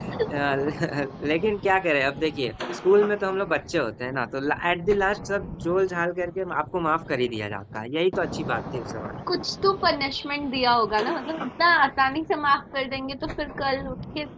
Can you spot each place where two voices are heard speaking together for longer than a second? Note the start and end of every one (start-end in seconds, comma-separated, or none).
none